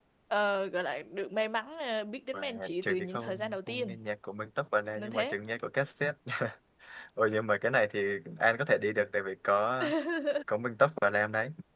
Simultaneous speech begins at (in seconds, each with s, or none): 2.3 s